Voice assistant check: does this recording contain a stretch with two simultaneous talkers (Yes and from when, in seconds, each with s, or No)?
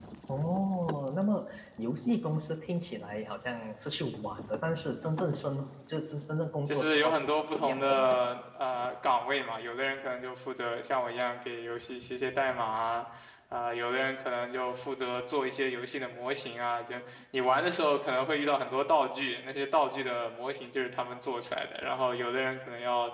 Yes, from 6.7 s